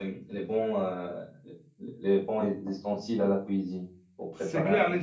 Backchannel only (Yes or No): No